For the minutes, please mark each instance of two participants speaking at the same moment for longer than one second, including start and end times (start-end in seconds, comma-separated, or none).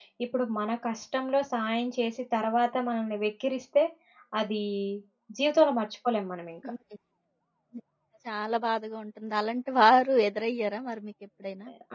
none